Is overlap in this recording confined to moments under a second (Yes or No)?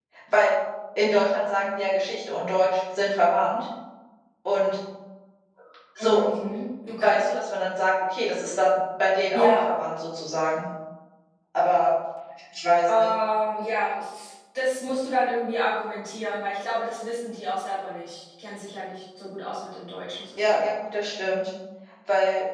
Yes